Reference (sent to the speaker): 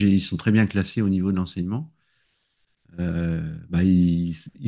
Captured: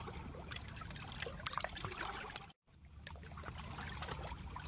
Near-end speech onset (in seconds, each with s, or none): none